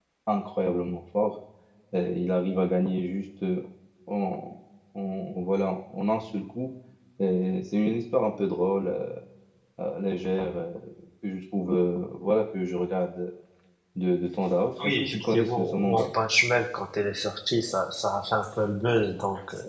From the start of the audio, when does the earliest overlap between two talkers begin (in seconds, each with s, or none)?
14.8 s